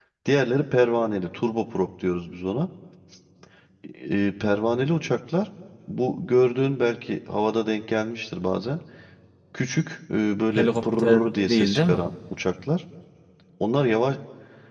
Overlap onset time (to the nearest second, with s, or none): 11 s